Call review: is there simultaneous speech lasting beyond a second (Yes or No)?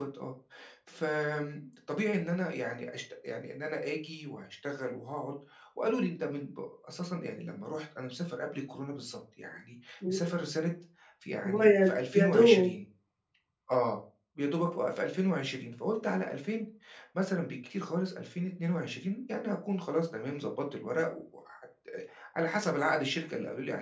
Yes